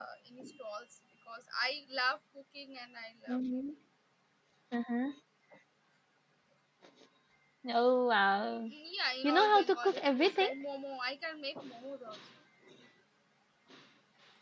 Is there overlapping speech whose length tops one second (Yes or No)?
Yes